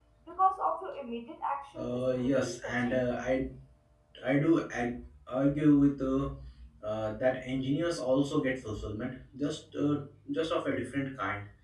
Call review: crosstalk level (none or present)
present